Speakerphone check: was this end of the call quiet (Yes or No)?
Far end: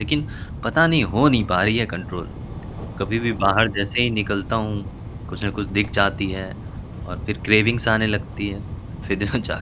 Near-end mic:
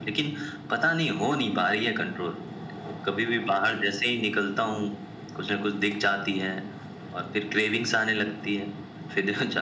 Yes